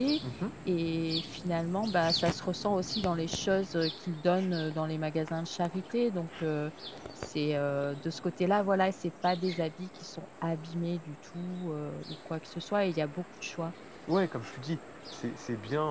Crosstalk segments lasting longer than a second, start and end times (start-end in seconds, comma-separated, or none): none